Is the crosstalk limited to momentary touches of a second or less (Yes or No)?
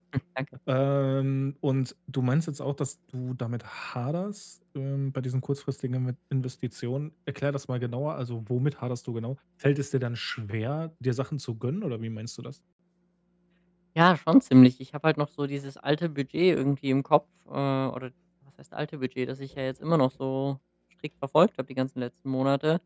Yes